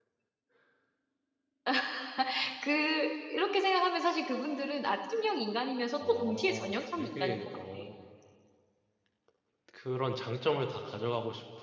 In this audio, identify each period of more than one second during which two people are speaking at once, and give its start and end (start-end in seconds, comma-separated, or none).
6.1-7.6